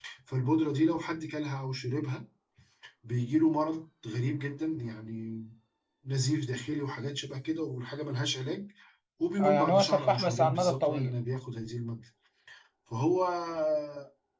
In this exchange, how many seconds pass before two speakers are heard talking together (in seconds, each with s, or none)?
9.4 s